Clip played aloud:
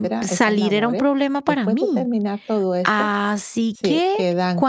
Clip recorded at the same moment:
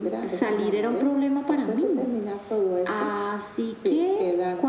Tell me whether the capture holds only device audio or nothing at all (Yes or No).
Yes